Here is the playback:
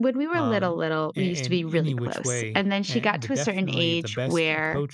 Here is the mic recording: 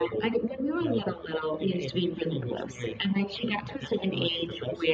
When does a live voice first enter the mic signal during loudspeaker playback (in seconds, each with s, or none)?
none